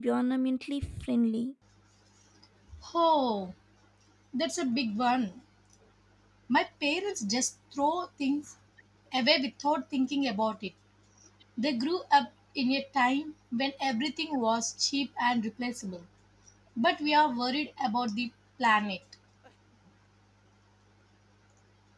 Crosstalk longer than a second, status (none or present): none